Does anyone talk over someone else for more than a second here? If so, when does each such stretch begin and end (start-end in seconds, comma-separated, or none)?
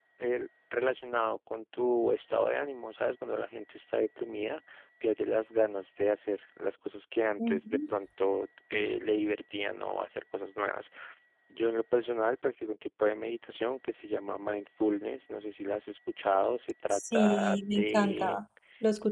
16.9-18.4